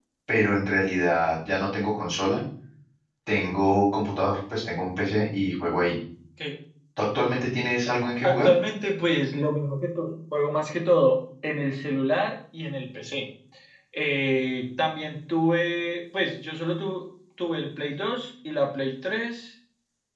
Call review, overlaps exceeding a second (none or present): none